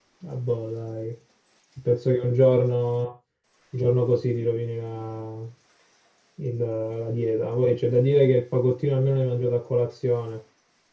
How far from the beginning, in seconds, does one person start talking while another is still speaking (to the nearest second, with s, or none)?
none